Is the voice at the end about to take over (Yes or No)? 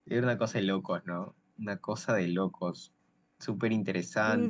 Yes